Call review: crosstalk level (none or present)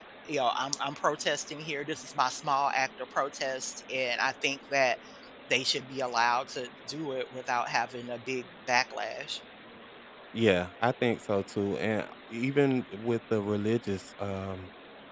none